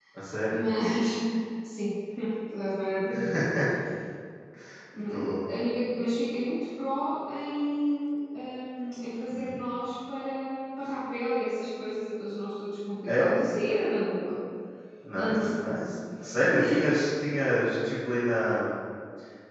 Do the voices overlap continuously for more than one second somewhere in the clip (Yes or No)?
No